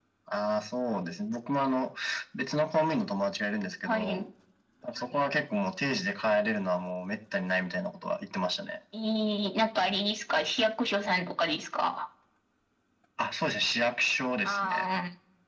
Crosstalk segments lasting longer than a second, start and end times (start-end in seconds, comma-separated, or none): none